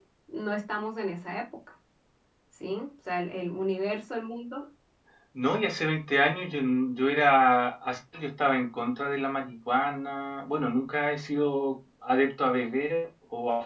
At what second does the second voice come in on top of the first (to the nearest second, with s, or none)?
none